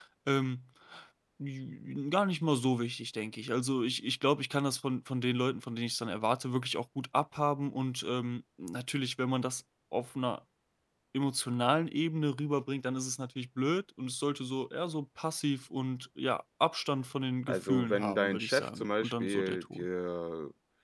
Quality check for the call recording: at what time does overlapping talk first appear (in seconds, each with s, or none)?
17.5 s